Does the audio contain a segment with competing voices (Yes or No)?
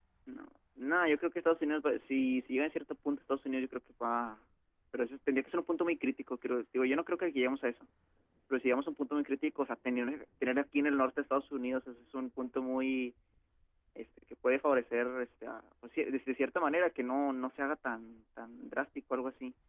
No